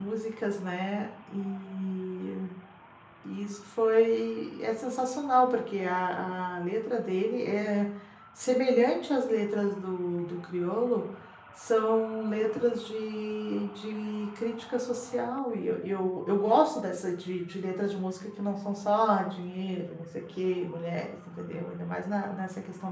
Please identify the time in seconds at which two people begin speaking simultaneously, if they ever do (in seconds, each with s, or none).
none